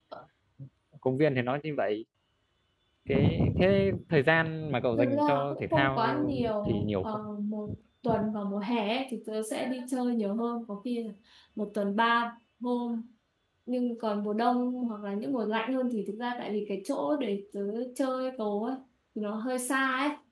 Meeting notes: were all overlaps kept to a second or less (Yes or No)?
No